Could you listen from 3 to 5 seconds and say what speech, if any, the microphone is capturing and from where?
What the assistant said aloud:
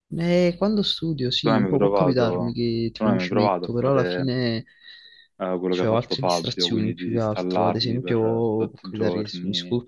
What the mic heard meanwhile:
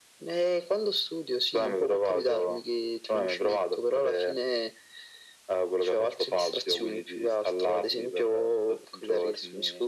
echo only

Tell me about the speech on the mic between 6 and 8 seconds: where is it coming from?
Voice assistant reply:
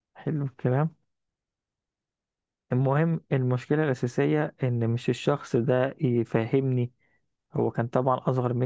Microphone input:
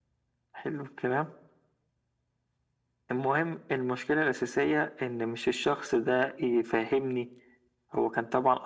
echo only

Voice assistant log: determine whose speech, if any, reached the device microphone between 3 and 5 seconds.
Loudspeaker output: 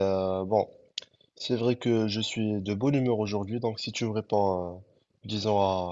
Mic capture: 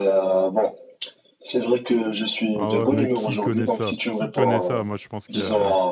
both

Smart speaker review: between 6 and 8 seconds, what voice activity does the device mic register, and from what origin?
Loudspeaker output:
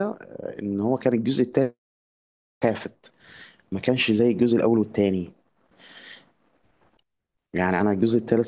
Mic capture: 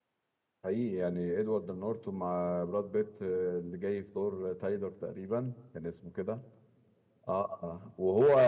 user only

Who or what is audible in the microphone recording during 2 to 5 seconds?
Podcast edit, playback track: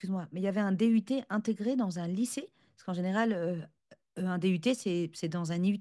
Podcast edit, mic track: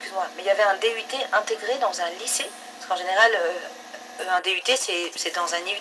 echo only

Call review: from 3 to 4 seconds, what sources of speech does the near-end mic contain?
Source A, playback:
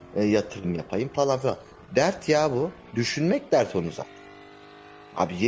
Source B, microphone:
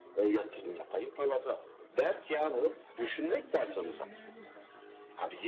both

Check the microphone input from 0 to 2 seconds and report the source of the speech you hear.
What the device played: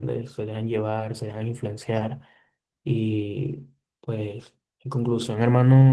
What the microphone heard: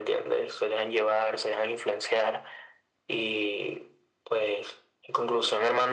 echo only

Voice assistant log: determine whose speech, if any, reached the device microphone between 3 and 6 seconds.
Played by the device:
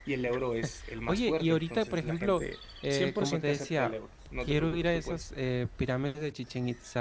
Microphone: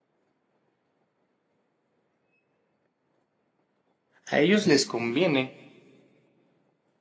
user only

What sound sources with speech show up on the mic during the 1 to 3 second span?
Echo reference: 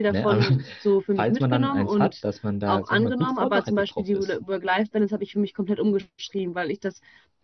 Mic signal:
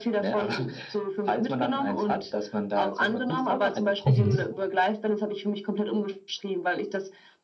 echo only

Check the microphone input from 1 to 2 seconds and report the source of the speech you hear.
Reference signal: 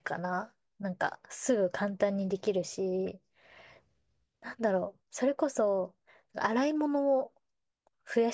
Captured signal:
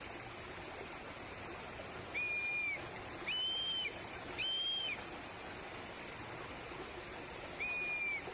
neither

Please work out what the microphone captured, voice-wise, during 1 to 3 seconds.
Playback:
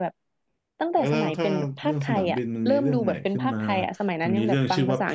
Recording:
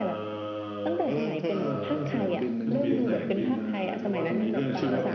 both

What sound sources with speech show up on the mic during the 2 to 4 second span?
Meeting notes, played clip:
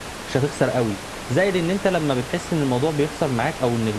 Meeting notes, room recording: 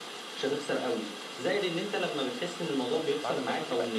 both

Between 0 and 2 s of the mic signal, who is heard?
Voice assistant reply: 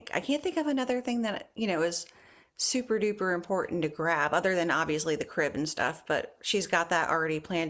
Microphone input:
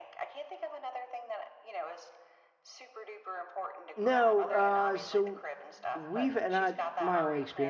echo only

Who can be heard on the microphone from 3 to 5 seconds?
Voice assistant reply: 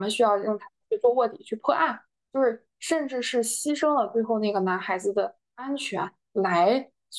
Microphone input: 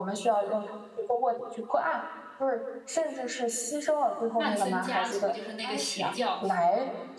both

